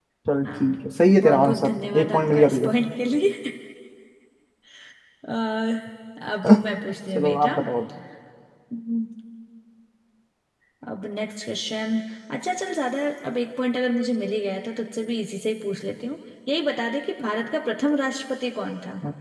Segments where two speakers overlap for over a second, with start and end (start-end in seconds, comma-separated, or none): 1.2-2.7